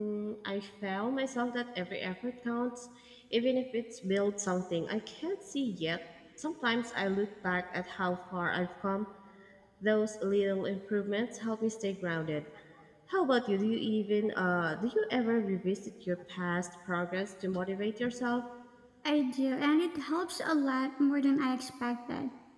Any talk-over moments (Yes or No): No